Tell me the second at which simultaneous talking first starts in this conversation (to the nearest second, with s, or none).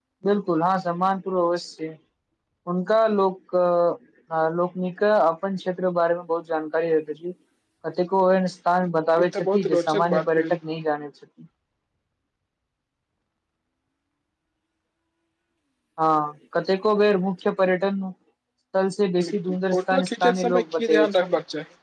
9 s